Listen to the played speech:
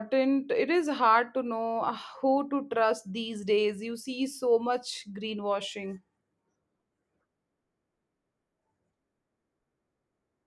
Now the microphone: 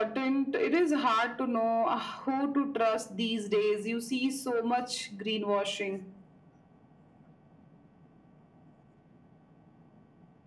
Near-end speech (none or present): none